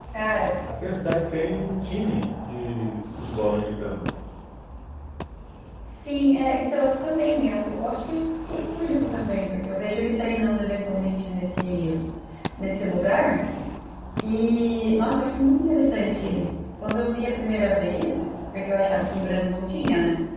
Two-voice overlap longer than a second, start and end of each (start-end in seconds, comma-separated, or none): none